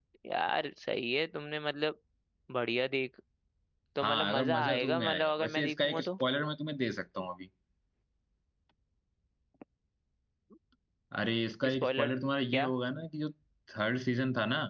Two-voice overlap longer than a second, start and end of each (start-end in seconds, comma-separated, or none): 4.0-6.1